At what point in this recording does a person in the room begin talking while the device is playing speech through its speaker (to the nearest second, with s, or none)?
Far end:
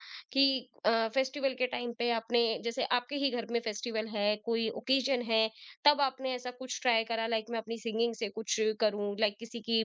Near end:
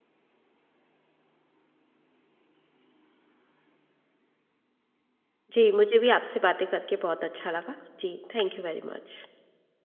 6 s